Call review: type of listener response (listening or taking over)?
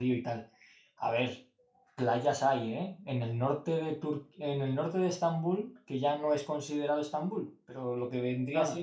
listening